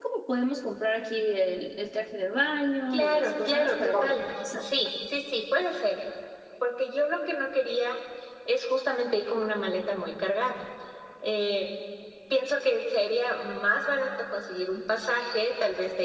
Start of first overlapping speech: 2.9 s

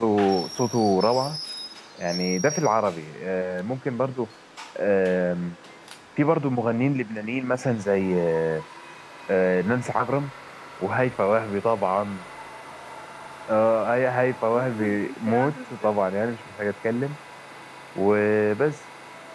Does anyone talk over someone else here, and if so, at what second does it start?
14.4 s

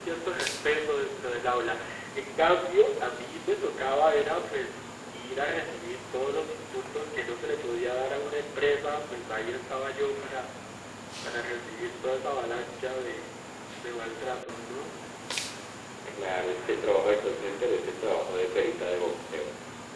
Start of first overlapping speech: none

